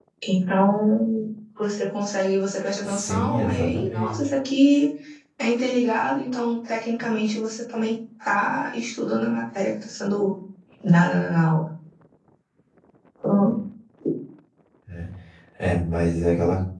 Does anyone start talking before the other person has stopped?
Yes, from 2.8 s

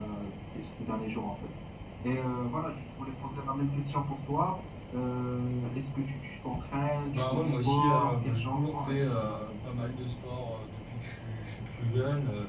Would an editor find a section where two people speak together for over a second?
Yes, from 7.1 s

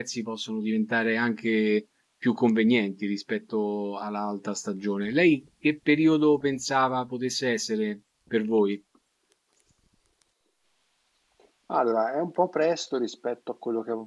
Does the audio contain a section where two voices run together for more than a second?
No

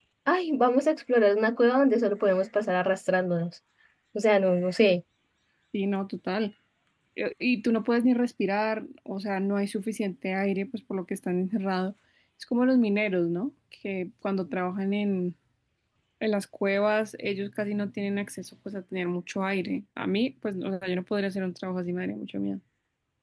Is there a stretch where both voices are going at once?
No

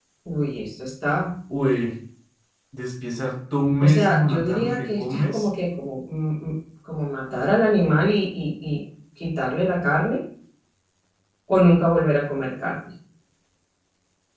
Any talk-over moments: Yes, from 3.8 s

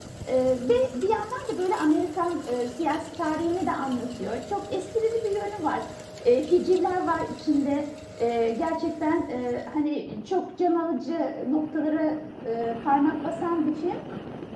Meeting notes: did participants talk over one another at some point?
No

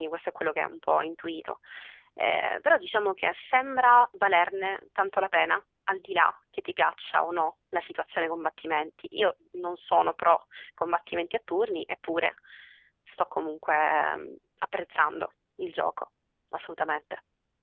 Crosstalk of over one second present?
No

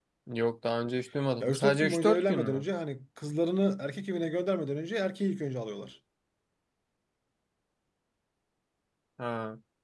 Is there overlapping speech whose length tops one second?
Yes, from 1.4 s

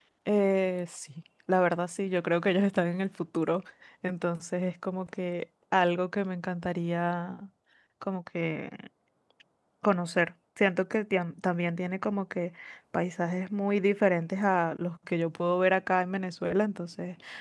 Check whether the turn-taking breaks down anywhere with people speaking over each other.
No

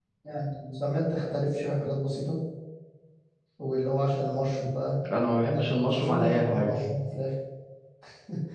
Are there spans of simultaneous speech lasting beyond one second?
Yes, from 5.0 s

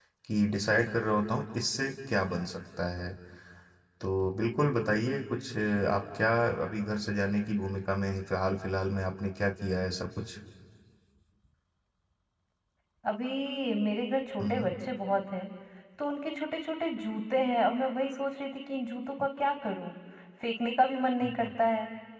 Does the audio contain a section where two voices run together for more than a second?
No

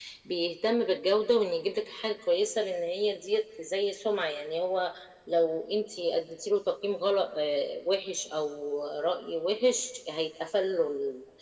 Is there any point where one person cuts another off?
No

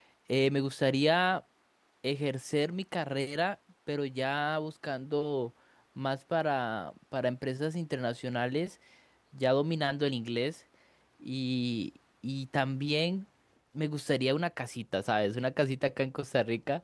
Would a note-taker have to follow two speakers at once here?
No

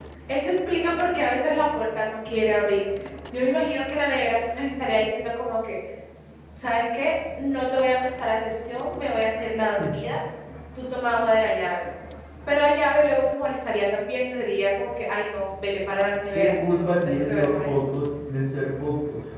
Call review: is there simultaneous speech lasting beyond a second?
Yes, from 16.3 s

